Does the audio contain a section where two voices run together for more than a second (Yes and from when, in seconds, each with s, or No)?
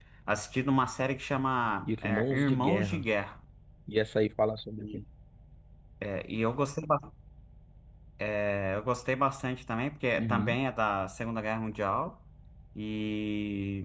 Yes, from 1.8 s